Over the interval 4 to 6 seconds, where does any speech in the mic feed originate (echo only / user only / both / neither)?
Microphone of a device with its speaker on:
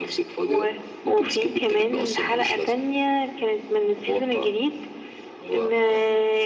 echo only